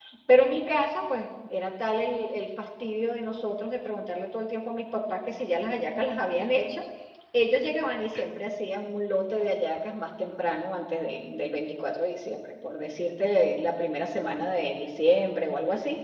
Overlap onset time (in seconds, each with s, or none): none